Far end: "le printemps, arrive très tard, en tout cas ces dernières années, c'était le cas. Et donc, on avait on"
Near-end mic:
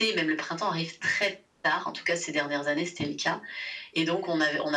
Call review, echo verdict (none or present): present